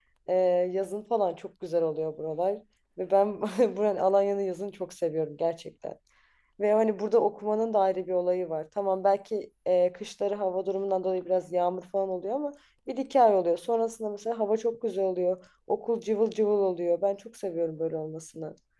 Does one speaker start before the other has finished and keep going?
No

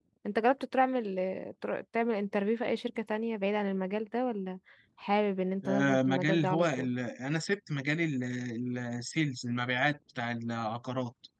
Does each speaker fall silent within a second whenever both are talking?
No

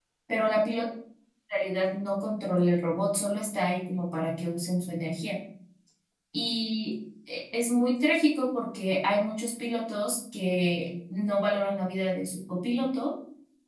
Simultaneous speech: No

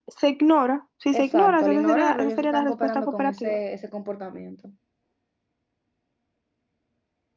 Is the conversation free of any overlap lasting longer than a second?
No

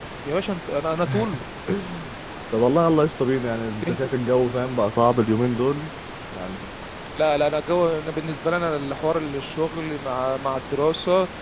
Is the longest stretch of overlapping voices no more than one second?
Yes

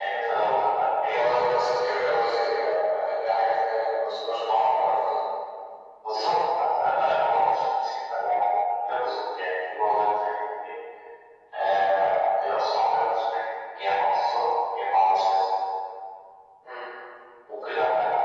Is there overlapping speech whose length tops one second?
No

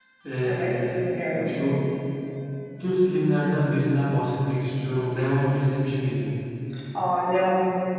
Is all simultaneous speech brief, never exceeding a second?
Yes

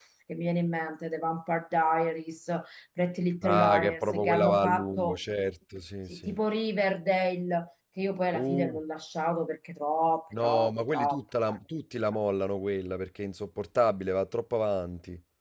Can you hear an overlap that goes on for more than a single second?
Yes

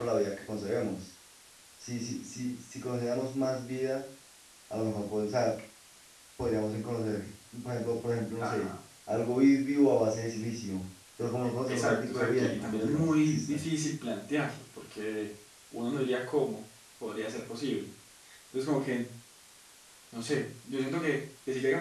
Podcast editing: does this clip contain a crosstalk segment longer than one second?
Yes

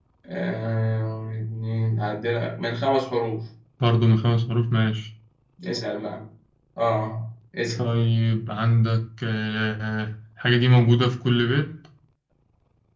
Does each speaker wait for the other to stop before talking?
Yes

